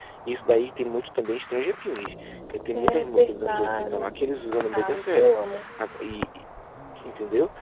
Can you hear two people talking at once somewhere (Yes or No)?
Yes